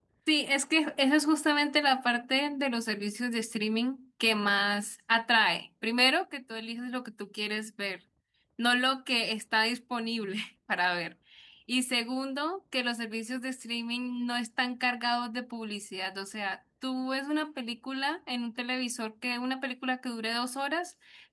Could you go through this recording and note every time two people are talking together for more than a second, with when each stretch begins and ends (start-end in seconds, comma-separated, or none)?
none